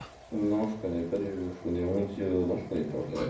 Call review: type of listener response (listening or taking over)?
taking over